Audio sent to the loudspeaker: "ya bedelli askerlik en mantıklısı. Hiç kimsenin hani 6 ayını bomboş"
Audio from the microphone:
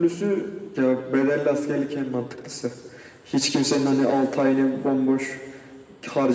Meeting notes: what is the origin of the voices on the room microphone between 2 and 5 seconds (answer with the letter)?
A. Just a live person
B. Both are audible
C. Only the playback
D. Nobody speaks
C